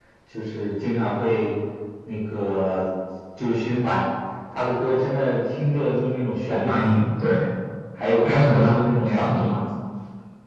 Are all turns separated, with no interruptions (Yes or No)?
No